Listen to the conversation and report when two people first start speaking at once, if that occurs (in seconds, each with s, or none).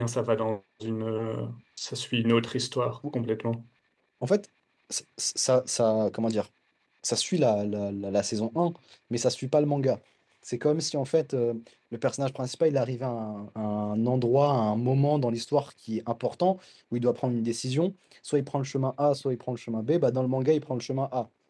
none